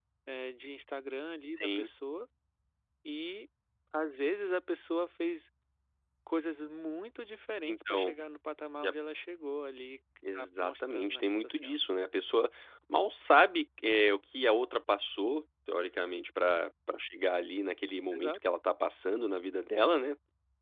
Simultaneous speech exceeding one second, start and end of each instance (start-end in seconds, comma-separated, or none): 10.2-11.8